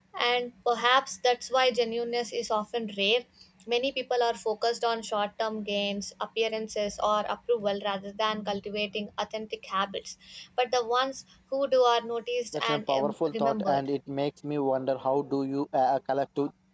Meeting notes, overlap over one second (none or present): present